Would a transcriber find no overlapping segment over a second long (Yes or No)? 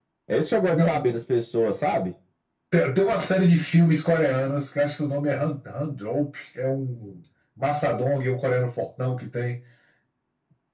Yes